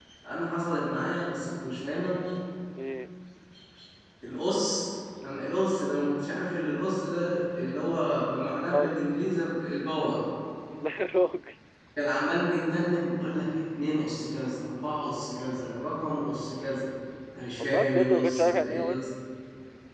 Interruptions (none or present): present